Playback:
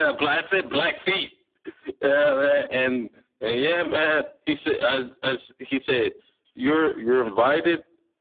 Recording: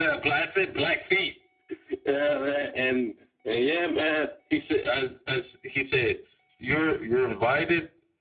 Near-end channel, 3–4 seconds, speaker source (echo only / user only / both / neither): echo only